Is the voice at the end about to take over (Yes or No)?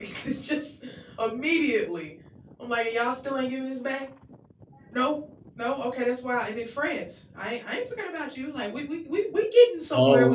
Yes